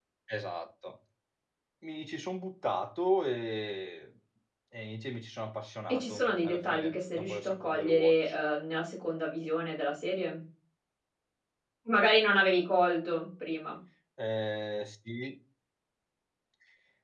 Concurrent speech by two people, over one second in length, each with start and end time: 5.9-8.4

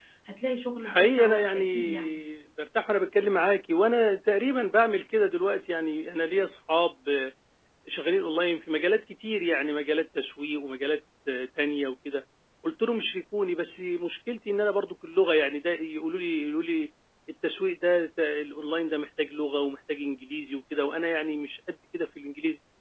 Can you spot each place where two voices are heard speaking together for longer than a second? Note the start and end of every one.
0.8-2.2

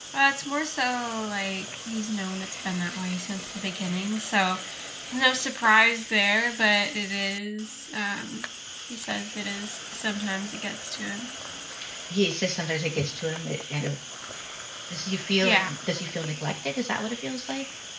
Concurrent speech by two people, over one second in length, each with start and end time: none

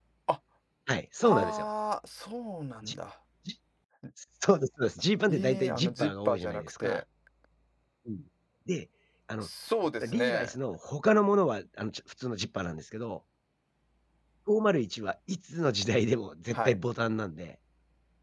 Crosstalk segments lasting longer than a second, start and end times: 5.3-7.0

